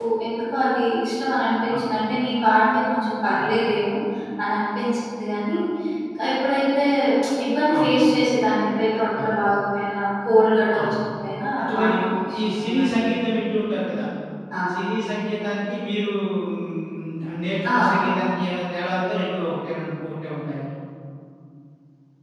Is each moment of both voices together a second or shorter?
No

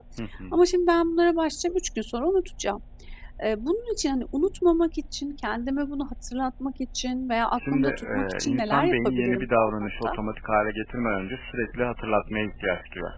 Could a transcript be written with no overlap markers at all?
No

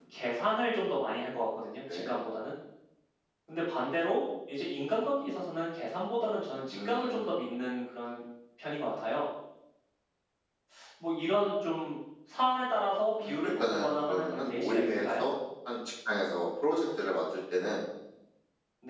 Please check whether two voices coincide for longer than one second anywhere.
Yes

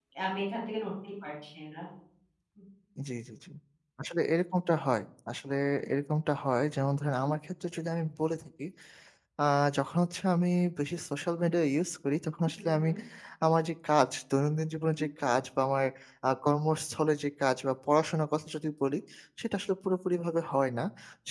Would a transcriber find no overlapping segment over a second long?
Yes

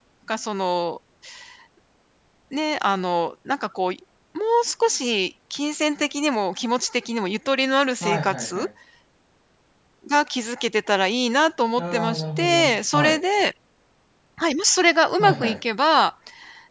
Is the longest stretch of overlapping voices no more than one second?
No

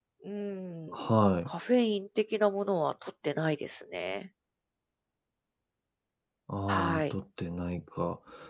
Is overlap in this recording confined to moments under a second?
Yes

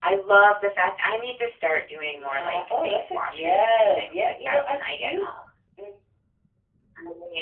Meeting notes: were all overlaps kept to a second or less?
No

